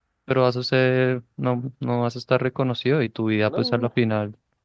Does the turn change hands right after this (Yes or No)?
No